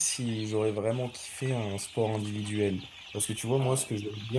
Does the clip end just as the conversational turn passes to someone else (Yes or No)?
No